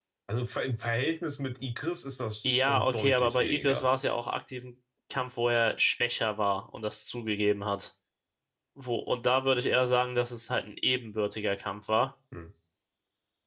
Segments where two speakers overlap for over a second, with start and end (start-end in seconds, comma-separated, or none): 2.4-3.9